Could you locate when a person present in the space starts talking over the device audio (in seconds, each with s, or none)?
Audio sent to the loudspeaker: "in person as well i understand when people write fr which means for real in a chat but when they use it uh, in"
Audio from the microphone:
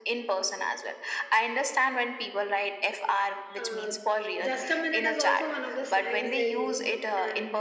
3.6 s